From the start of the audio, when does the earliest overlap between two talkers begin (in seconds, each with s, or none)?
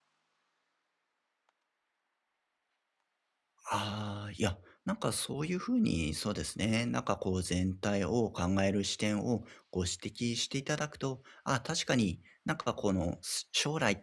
none